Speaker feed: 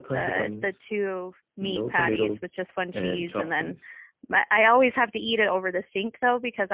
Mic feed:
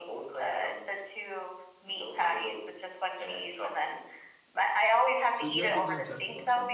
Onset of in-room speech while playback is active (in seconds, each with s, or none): 5.3 s